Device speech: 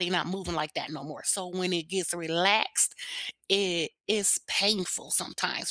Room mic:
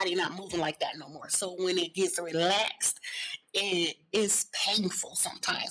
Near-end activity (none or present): none